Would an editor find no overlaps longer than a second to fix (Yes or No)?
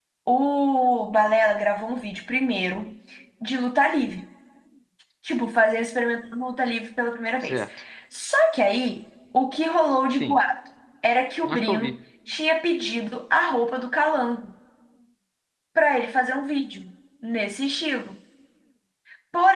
Yes